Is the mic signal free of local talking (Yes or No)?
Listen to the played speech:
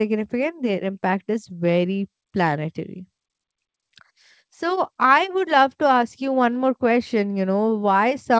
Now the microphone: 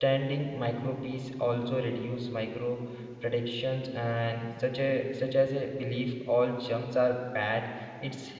No